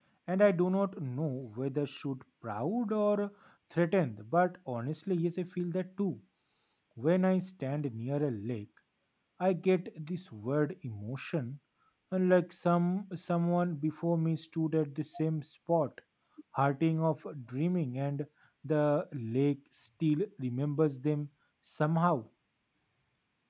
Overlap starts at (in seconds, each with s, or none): none